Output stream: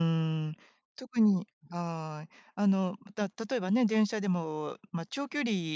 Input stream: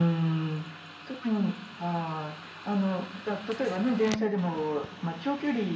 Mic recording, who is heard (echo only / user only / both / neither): echo only